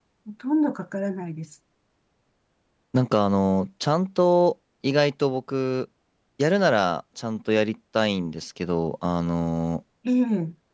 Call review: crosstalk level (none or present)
none